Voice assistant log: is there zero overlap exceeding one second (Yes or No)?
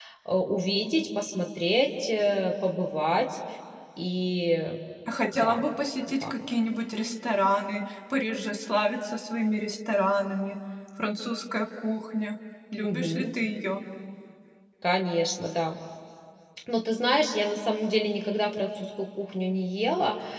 Yes